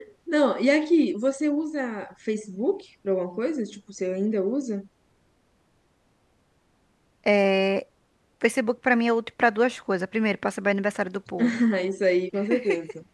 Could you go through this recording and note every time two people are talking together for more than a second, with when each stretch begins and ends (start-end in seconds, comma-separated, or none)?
none